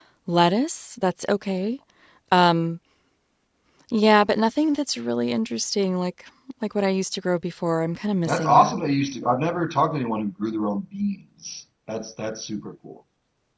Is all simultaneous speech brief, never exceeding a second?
Yes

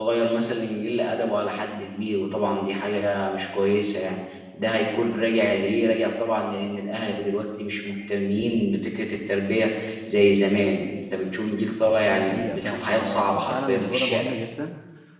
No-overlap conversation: No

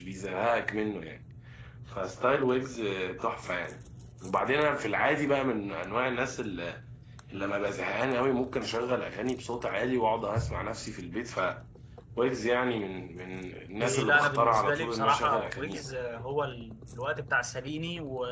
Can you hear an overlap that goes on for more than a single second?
Yes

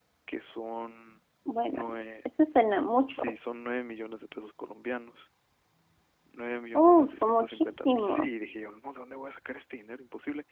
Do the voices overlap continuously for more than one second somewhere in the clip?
Yes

